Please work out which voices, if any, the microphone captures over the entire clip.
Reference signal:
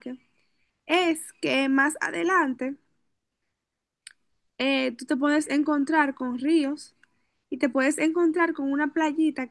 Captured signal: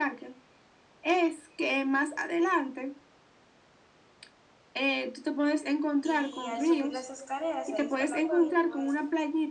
both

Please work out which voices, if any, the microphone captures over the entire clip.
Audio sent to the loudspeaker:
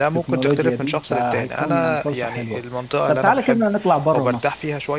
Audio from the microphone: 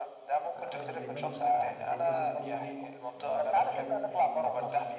both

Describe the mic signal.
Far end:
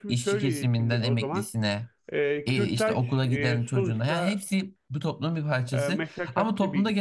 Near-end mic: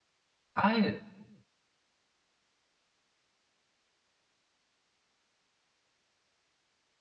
user only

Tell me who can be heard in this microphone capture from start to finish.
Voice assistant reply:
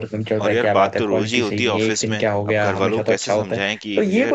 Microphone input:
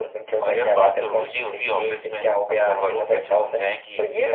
echo only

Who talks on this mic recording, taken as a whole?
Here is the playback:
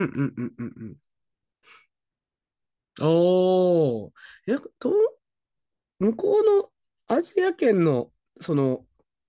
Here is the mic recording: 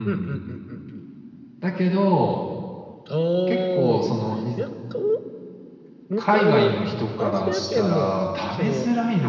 both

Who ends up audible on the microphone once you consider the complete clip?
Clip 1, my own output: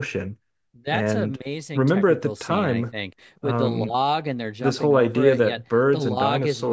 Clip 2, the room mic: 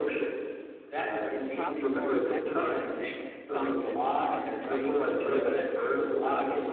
both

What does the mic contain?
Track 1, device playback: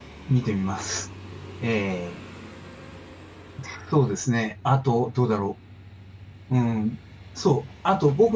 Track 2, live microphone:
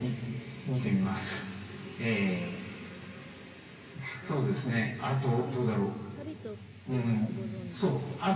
both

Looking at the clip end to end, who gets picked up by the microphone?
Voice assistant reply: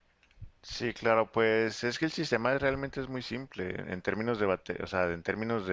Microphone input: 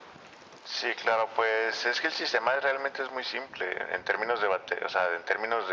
echo only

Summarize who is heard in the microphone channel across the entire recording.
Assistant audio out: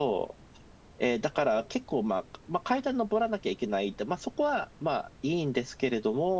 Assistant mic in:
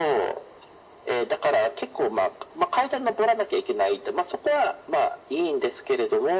echo only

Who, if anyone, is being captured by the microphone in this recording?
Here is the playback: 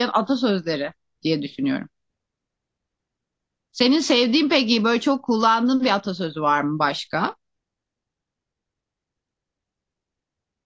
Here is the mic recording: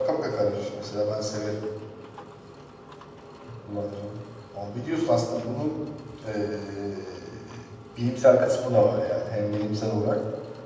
user only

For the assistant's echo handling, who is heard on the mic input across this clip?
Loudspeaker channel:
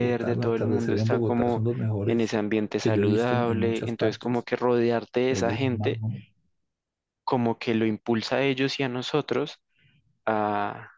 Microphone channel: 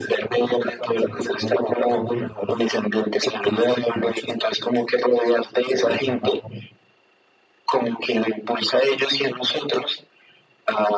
echo only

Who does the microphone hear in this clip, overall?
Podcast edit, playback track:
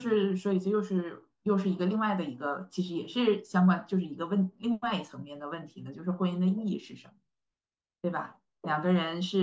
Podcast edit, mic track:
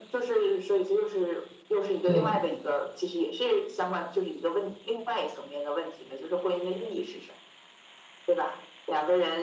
both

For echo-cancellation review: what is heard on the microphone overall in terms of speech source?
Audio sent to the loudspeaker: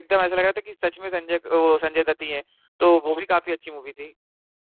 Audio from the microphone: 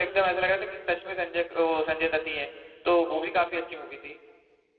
echo only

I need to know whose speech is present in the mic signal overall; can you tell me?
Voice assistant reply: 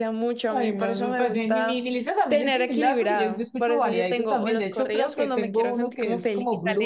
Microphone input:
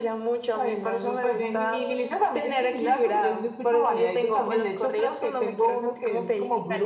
both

